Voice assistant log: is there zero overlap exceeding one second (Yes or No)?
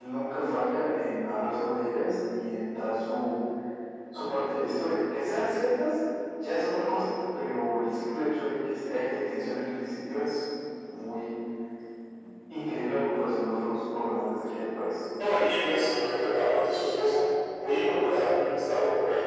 Yes